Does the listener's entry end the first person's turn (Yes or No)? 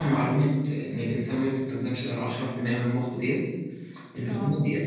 No